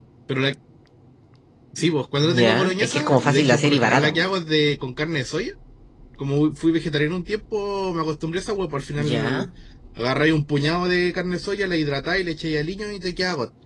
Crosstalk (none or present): present